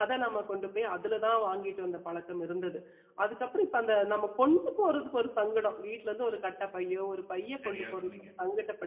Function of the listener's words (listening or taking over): listening